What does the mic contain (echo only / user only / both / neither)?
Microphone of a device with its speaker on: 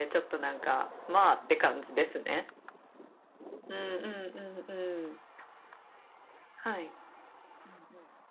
echo only